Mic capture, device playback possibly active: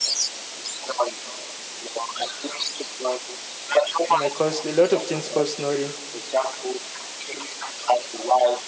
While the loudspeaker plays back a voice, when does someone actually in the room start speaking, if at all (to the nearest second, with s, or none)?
4 s